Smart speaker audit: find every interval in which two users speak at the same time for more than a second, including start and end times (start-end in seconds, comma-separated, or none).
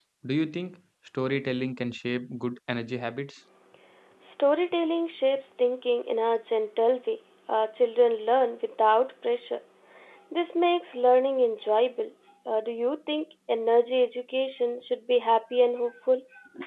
none